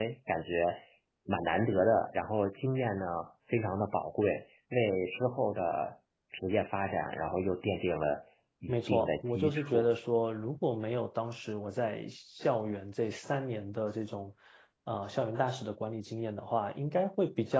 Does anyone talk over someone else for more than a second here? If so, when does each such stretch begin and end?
8.7-9.9

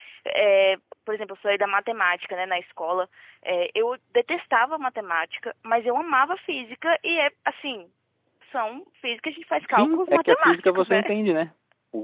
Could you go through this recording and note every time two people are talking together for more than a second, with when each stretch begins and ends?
9.7-11.0

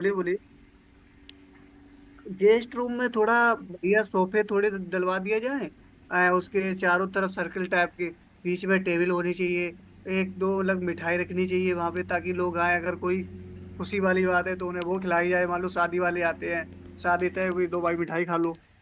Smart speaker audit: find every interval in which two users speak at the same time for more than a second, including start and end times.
none

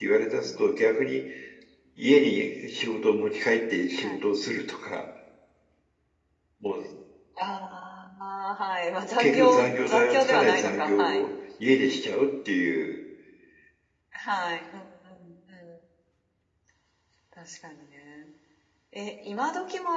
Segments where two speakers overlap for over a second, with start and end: 9.2-11.2

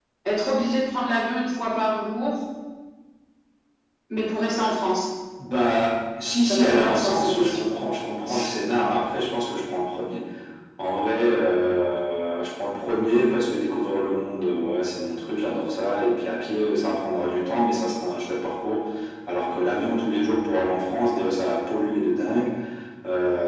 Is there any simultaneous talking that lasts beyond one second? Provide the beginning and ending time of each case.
6.5-7.7

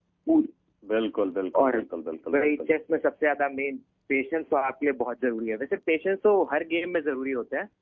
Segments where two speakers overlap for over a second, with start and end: none

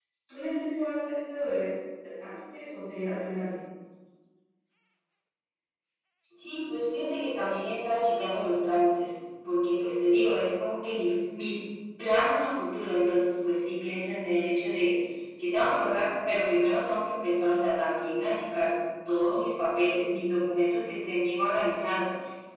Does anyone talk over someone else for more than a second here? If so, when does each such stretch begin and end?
none

